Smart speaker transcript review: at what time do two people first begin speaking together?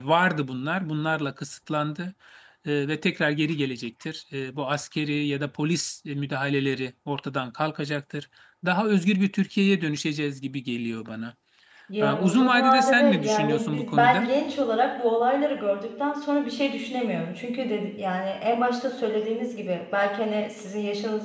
12.0 s

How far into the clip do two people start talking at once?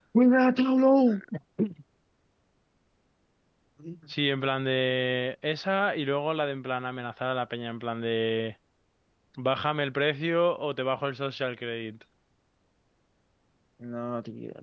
none

